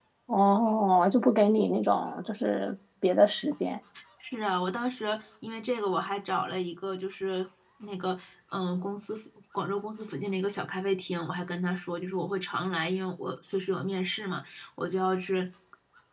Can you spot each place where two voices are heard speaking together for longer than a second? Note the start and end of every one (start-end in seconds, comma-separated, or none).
none